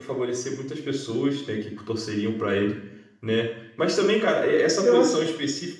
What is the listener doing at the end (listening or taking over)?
listening